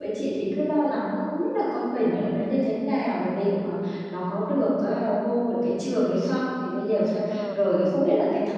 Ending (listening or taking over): listening